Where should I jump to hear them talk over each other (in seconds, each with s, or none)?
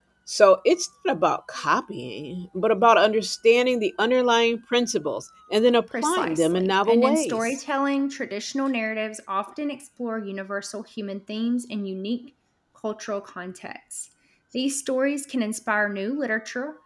5.9 s